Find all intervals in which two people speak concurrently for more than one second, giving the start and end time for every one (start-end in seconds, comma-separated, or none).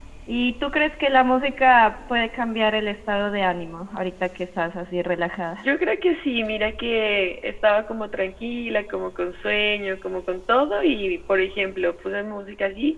none